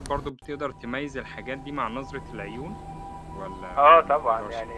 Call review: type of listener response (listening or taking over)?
taking over